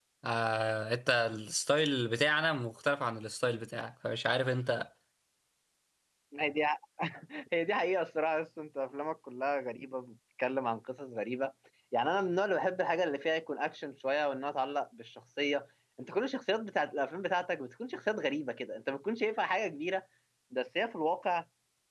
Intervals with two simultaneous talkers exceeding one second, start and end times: none

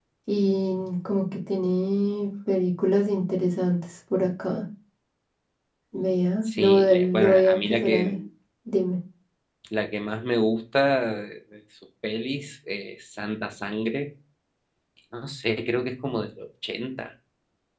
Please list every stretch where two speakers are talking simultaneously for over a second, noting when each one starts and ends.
6.4-8.2

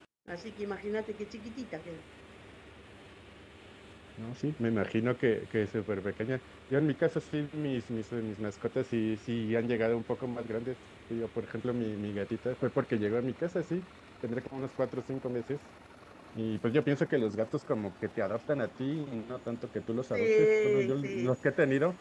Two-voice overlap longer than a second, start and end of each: 20.1-21.3

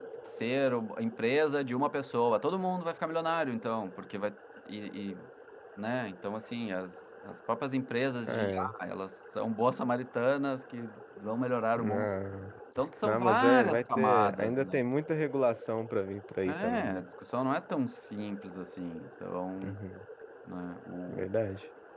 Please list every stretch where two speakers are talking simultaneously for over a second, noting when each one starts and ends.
13.0-14.8

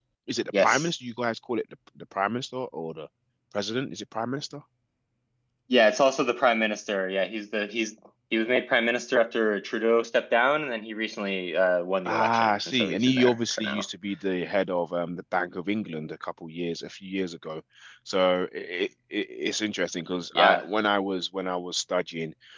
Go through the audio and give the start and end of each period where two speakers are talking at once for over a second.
12.1-13.8

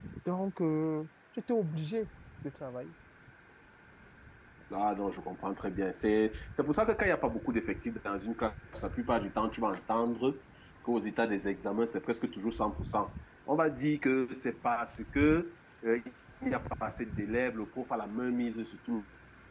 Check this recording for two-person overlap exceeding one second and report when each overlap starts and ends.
none

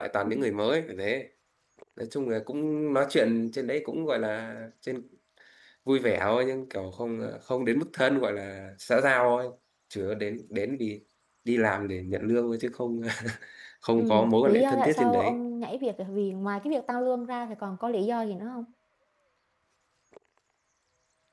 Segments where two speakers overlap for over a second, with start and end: 14.0-15.4

